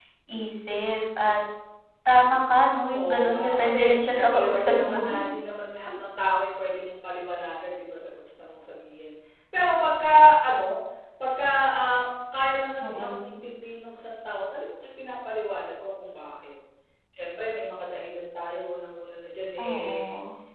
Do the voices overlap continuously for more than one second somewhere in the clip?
Yes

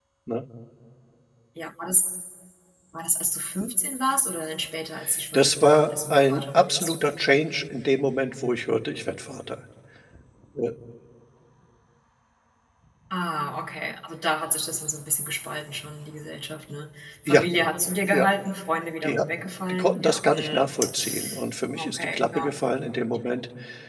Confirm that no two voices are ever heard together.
No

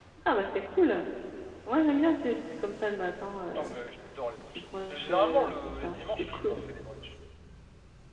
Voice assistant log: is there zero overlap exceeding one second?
No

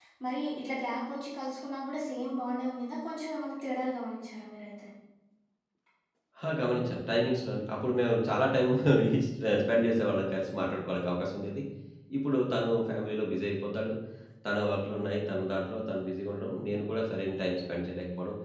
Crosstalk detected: No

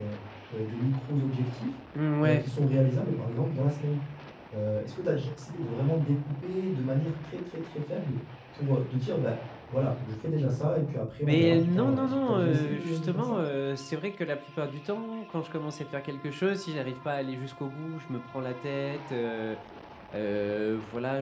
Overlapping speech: Yes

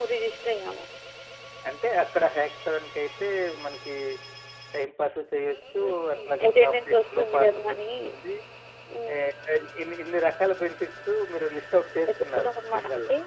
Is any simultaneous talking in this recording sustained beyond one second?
Yes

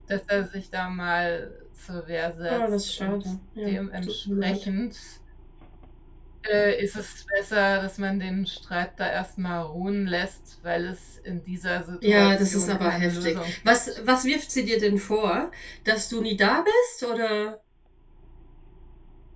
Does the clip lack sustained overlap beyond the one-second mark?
No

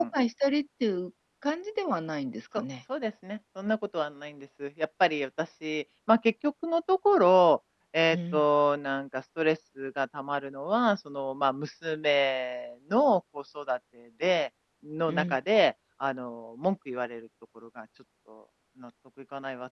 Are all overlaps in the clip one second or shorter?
Yes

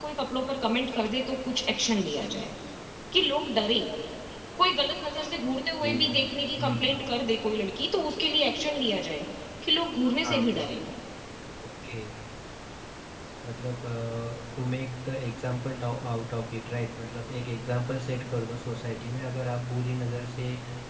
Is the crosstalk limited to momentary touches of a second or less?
Yes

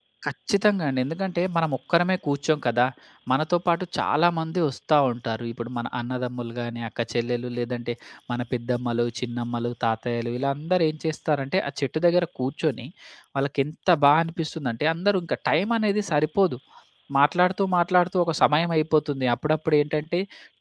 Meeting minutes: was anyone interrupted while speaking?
No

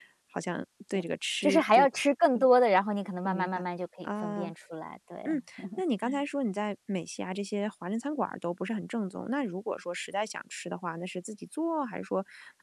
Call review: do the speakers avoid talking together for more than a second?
Yes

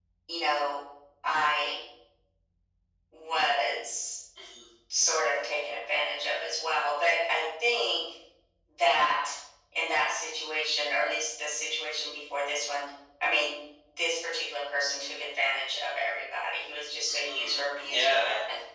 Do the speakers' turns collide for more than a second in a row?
Yes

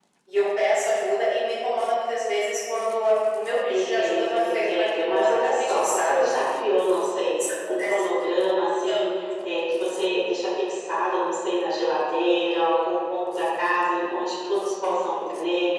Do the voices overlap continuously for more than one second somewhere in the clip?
Yes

